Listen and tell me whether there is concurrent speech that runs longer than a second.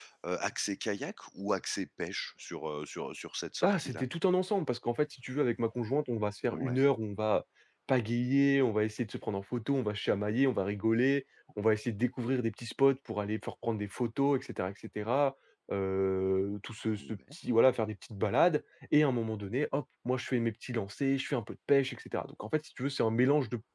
No

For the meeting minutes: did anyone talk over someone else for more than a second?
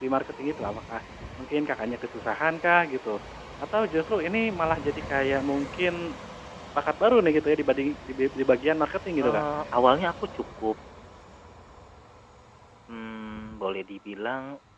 No

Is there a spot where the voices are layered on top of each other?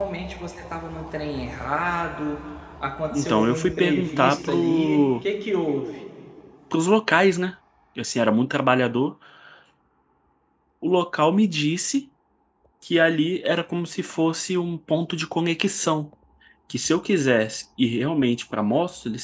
Yes, from 3.1 s

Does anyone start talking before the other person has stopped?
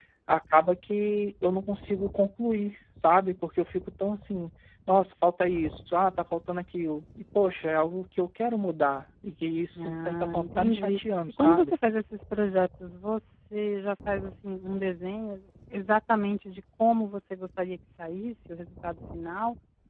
Yes, from 9.8 s

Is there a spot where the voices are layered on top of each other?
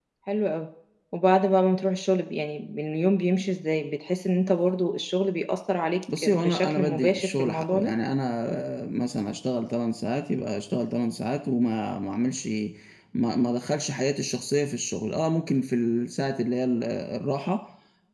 Yes, from 6.1 s

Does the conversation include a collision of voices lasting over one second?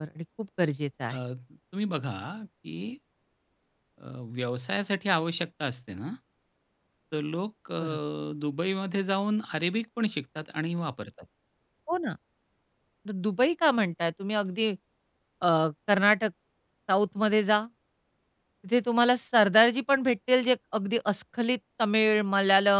No

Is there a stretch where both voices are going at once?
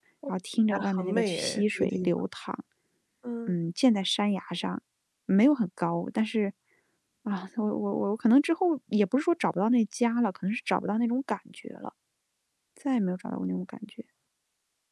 Yes, from 0.7 s

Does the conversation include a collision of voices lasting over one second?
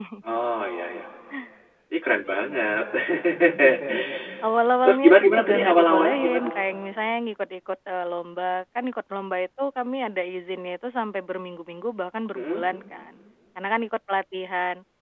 Yes, from 4.8 s

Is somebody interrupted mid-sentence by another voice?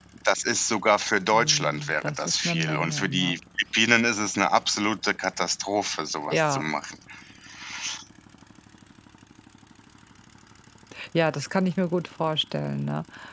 Yes, from 1.3 s

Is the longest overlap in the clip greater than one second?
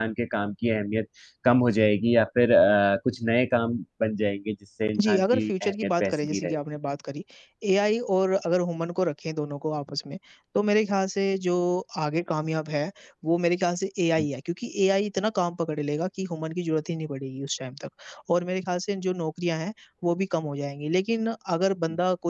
Yes, from 5.0 s

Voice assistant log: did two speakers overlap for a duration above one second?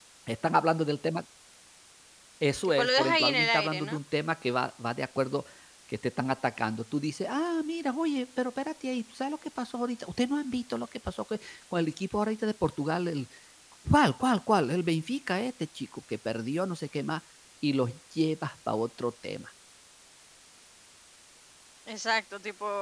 Yes, from 2.8 s

